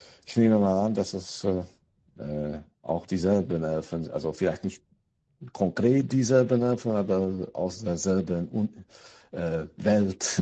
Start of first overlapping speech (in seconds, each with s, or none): none